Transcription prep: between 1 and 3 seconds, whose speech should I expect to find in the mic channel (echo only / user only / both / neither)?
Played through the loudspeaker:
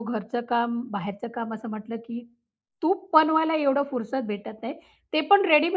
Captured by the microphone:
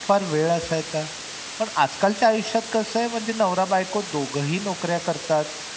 user only